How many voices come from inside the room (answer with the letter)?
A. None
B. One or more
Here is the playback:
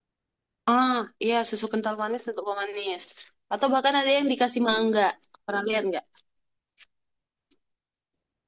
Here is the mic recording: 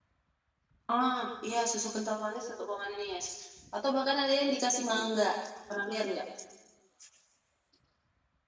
A